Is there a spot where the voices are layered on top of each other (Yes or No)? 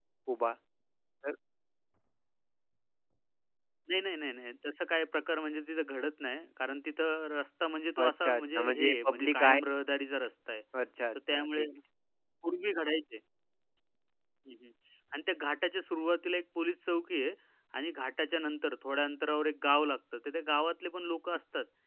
Yes